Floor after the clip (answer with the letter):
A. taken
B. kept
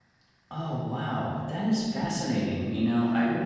B